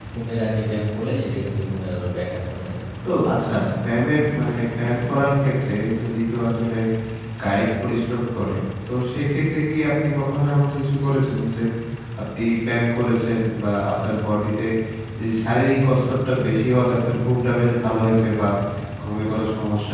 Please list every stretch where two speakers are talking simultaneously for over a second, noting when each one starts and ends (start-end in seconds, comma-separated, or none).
none